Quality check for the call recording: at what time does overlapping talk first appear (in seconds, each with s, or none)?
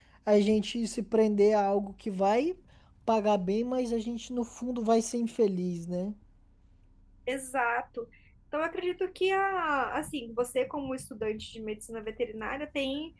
none